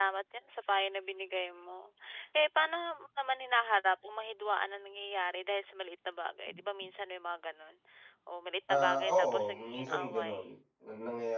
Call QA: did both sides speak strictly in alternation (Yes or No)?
No